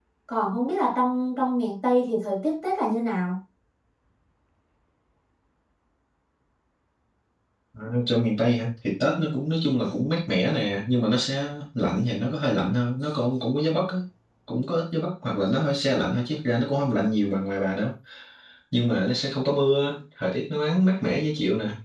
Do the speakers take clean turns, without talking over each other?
Yes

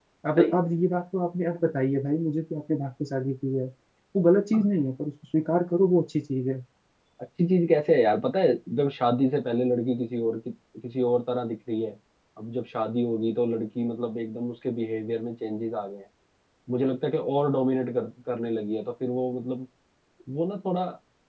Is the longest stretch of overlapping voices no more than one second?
Yes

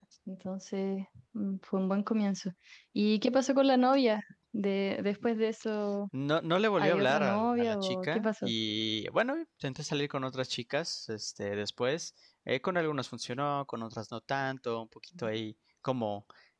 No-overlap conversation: No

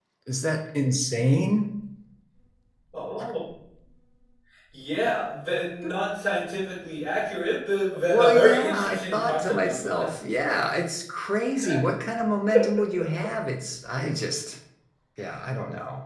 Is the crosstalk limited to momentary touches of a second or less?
No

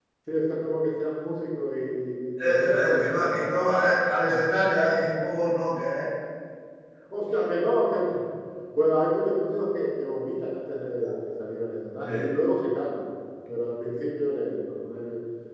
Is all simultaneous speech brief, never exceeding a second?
No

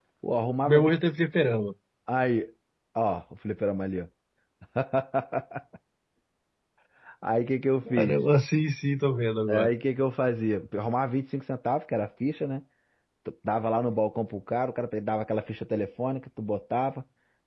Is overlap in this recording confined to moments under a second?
Yes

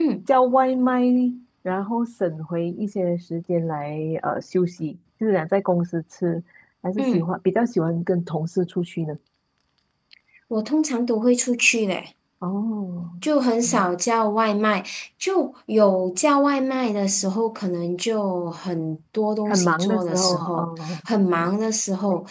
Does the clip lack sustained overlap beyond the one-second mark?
No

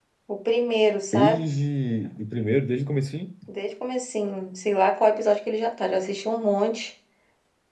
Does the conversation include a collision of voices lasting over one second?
No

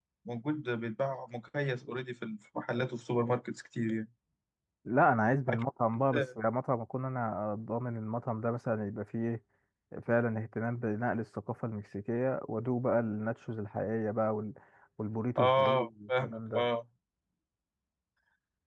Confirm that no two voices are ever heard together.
No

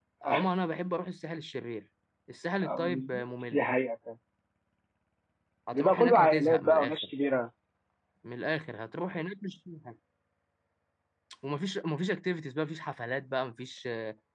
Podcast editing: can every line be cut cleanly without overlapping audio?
No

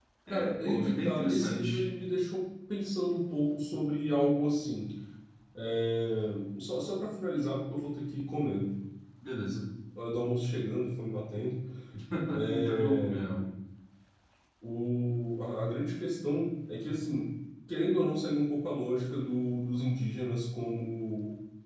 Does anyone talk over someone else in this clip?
Yes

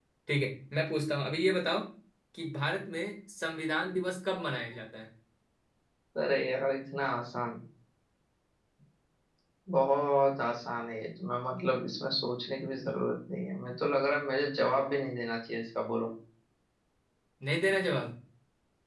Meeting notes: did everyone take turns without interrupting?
Yes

